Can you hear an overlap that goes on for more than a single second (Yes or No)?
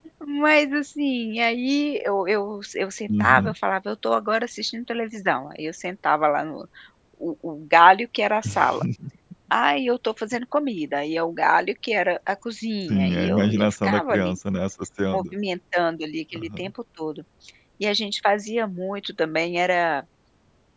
Yes